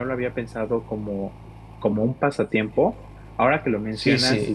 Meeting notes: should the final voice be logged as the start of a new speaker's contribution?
Yes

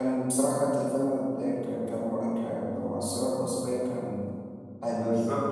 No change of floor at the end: No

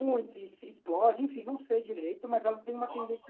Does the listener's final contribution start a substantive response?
No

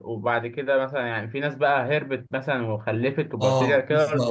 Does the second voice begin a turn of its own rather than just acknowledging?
Yes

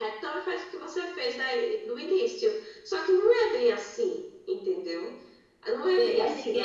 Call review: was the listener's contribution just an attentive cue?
No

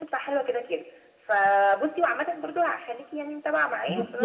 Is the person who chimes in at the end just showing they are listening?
No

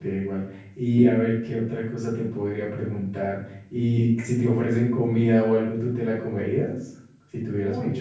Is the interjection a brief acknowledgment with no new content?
No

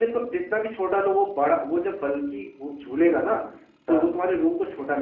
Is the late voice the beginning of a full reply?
No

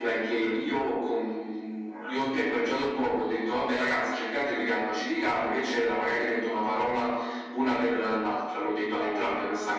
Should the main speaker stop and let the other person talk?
Yes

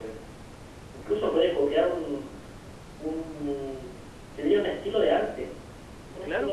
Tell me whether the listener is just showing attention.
No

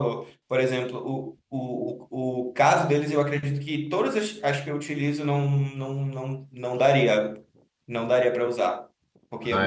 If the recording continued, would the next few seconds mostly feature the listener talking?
No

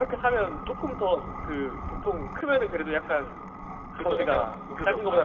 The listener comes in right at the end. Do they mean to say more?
Yes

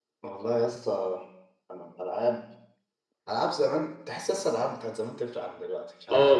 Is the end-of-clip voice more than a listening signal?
Yes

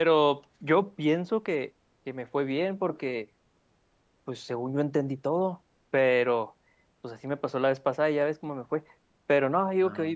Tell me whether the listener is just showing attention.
Yes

